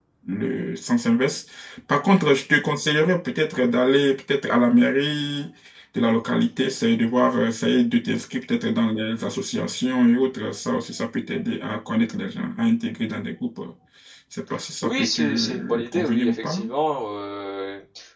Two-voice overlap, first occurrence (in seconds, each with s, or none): 14.8 s